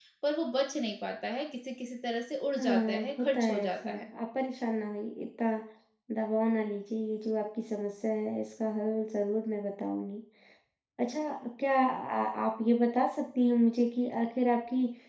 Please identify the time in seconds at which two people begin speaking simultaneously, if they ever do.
2.6 s

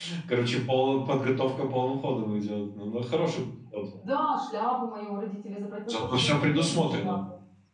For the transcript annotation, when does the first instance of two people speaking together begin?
5.9 s

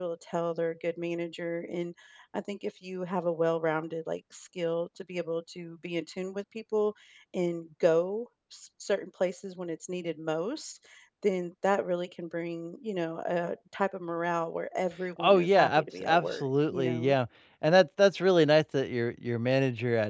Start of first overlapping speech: 15.2 s

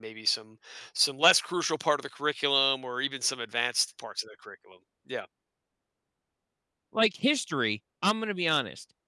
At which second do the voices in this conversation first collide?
none

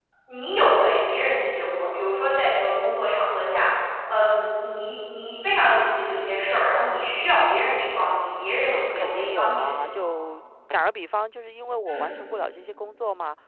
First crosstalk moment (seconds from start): 8.7 s

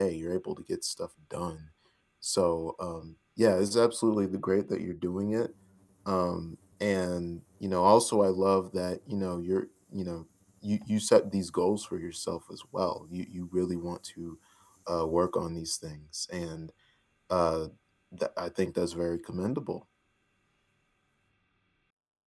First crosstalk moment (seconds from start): none

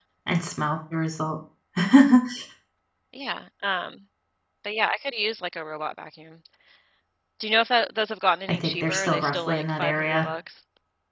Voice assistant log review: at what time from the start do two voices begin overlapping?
8.5 s

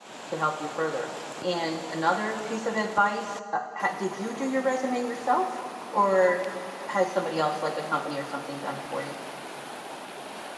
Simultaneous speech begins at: none

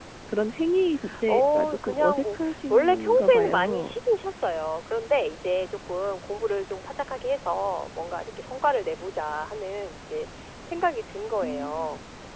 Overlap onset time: 1.3 s

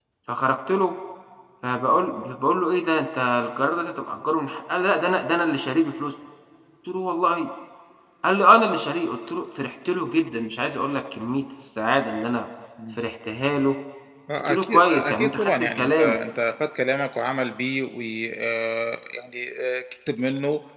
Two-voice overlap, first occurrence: 14.5 s

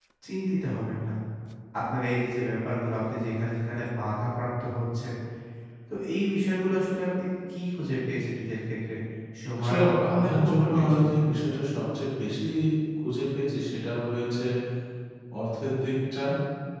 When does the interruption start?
9.6 s

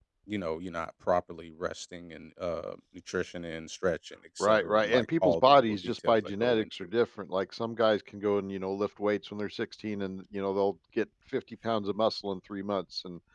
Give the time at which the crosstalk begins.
4.4 s

